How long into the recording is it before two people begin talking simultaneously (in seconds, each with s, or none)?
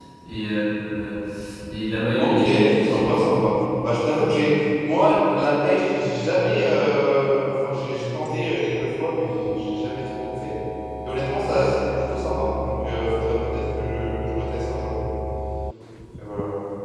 2.2 s